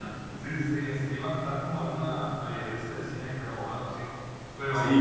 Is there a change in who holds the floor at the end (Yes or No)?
Yes